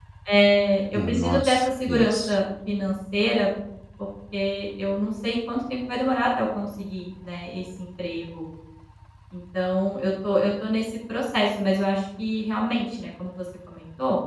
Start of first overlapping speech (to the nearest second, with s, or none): 1 s